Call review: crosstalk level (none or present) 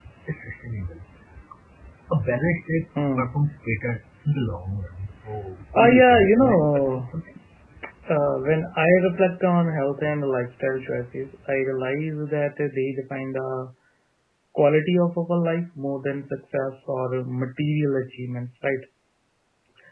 present